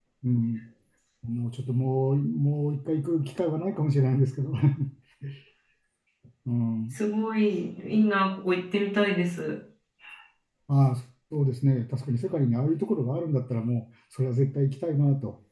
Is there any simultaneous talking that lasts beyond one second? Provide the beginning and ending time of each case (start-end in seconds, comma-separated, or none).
none